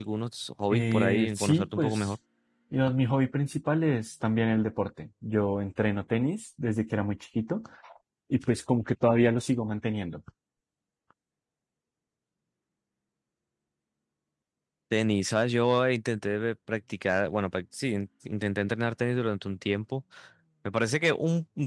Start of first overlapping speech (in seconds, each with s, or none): 0.7 s